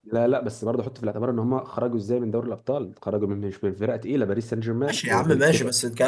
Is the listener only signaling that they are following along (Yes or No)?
No